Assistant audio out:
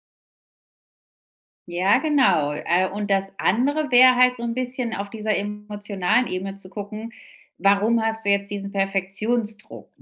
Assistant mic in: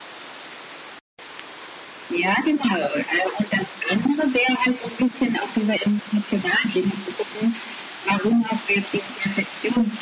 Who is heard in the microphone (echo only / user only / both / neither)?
echo only